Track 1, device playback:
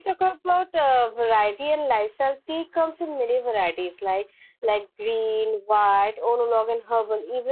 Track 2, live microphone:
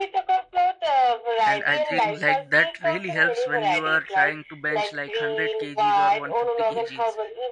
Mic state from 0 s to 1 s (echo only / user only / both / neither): echo only